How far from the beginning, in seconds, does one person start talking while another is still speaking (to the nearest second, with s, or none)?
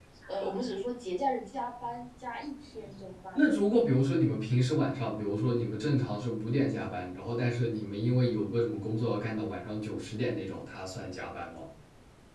none